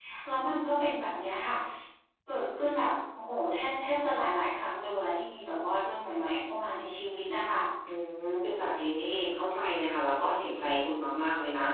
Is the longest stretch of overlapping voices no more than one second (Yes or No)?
Yes